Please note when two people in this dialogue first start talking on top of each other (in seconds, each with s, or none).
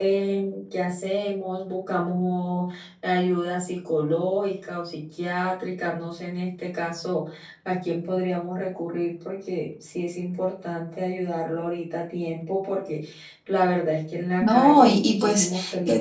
14.4 s